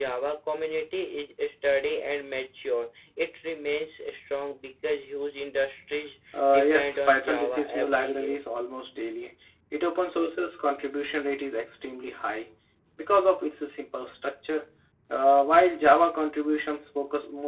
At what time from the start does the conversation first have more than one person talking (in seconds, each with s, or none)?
6.3 s